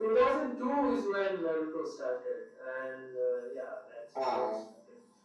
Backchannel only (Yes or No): Yes